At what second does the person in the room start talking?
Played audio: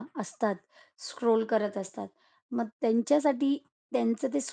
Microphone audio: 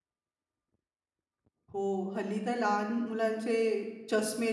1.7 s

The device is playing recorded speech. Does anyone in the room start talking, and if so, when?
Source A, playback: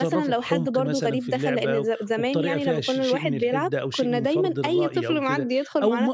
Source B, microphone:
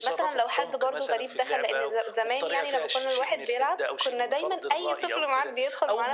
none

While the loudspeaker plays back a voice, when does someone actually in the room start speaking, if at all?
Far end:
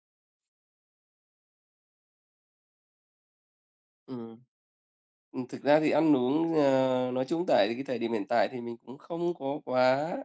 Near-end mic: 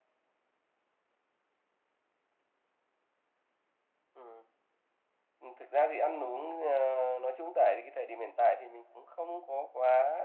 none

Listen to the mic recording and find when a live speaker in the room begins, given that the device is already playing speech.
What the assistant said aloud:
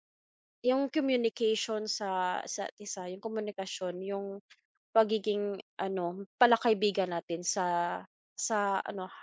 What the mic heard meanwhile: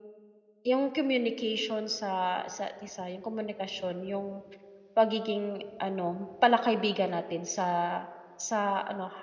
none

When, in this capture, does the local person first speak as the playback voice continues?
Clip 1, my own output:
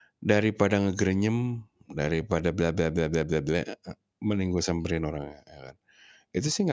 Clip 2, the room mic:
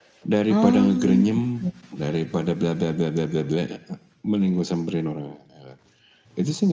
0.5 s

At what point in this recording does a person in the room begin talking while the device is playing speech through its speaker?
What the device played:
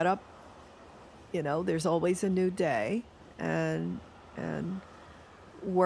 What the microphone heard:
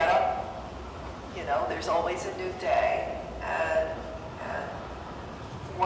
none

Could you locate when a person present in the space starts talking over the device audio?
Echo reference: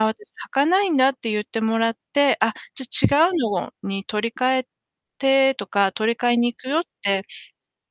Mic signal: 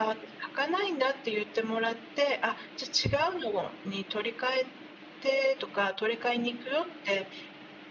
none

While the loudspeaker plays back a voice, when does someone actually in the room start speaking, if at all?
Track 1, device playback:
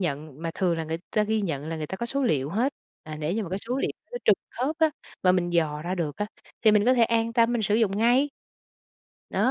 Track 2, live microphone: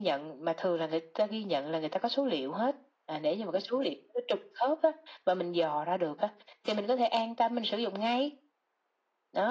none

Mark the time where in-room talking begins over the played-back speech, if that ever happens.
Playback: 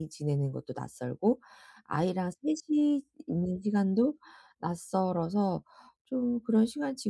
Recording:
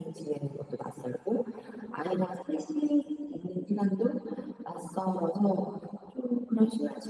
none

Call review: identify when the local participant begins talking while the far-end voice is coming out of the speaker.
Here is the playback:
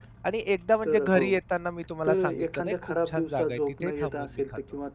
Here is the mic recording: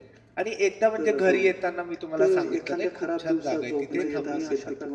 3.9 s

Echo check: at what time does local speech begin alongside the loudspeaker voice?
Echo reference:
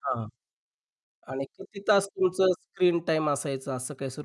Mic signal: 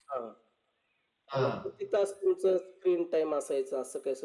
1.3 s

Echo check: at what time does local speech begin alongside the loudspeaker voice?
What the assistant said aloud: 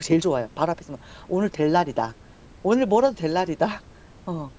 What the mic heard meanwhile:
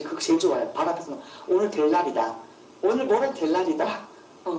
none

